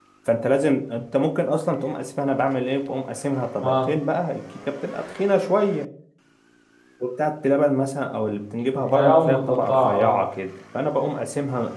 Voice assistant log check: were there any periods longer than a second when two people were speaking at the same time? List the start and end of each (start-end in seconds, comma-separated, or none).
8.8-10.2